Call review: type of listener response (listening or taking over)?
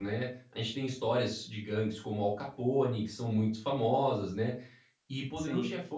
listening